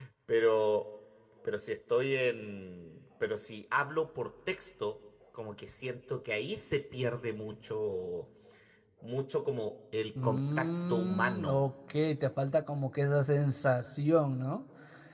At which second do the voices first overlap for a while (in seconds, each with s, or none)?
10.2 s